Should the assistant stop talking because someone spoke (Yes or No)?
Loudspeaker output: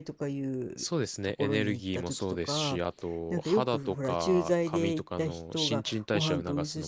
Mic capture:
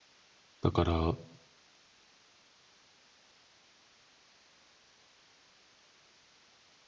Yes